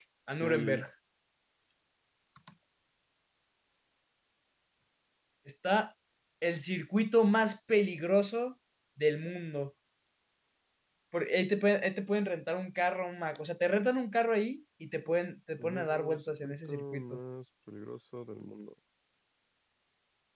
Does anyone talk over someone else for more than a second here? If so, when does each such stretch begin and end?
15.6-17.0

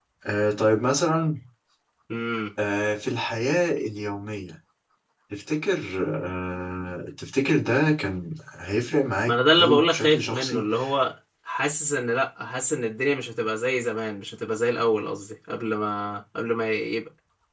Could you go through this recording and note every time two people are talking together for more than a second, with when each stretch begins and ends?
9.3-10.7

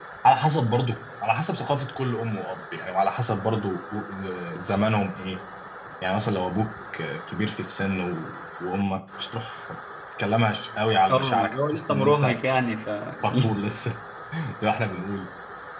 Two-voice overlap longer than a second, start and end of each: 11.1-12.4

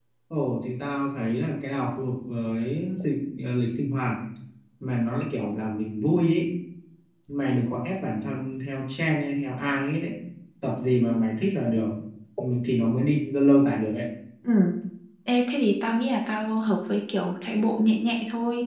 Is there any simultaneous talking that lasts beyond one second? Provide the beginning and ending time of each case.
none

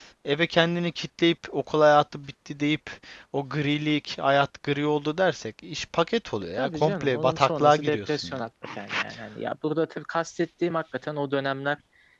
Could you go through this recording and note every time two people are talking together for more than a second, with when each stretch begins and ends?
6.5-8.4

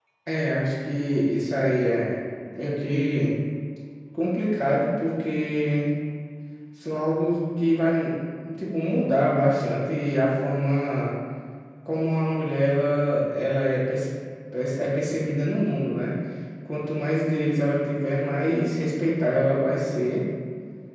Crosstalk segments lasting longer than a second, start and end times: none

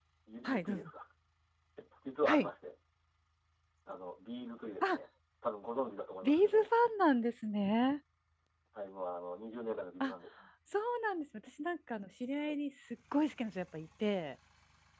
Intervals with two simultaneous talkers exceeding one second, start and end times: none

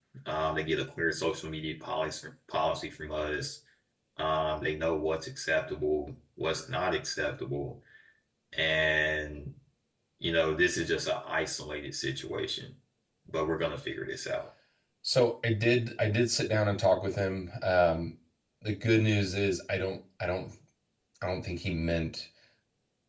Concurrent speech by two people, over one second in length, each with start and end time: none

